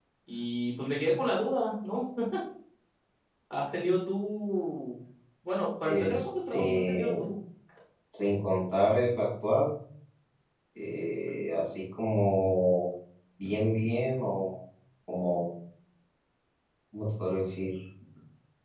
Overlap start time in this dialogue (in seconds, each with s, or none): 5.8 s